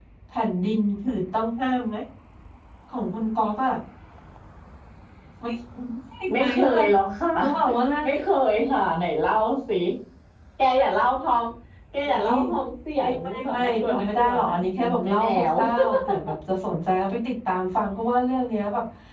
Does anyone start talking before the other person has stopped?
Yes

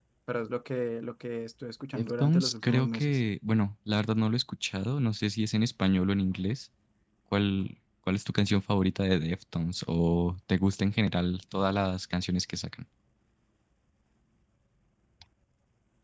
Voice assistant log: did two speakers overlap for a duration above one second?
Yes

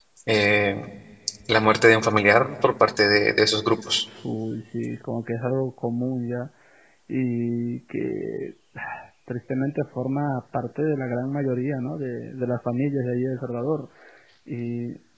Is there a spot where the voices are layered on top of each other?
No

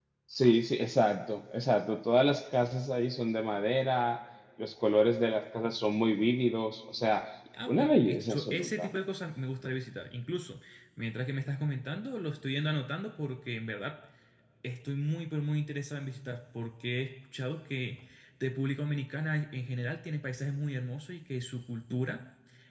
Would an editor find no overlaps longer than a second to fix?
No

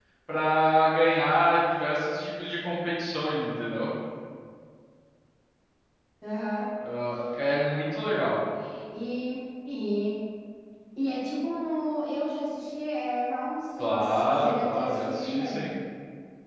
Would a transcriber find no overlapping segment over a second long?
No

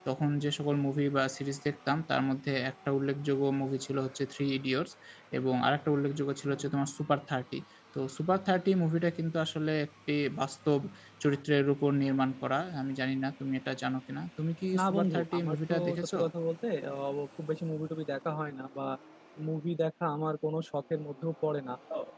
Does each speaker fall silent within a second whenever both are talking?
No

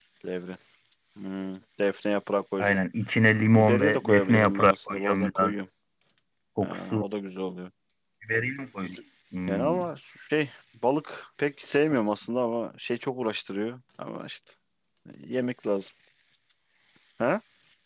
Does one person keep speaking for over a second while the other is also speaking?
Yes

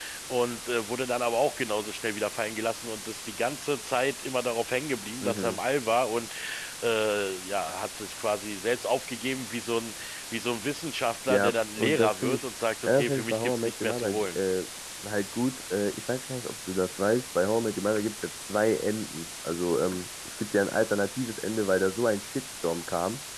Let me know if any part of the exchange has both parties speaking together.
Yes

